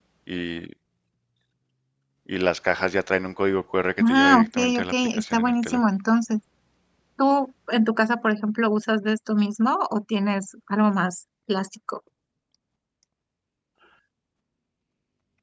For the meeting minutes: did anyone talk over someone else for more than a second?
Yes, from 4.0 s

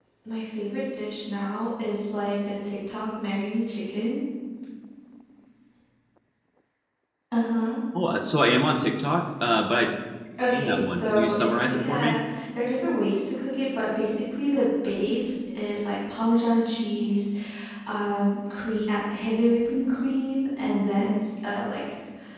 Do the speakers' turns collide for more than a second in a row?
Yes, from 10.4 s

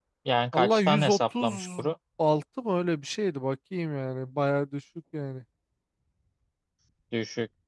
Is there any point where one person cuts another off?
Yes, from 0.5 s

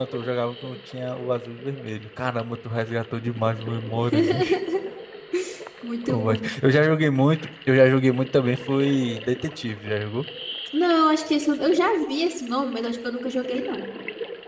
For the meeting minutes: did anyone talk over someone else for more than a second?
No

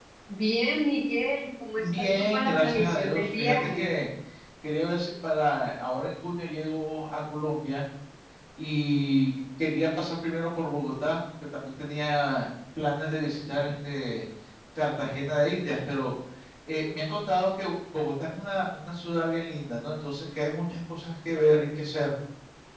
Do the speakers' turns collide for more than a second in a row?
Yes, from 1.8 s

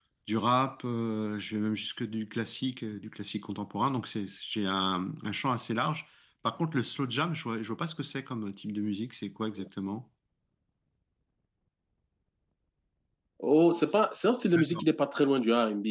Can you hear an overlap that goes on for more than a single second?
No

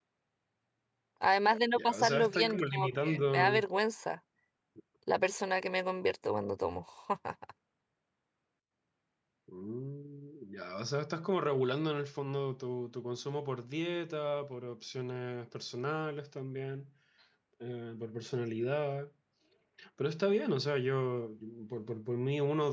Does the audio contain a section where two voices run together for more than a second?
Yes, from 1.8 s

